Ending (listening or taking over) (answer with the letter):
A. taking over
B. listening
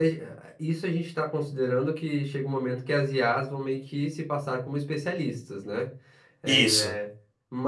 B